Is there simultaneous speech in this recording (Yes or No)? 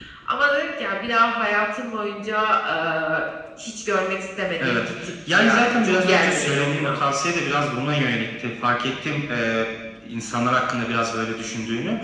Yes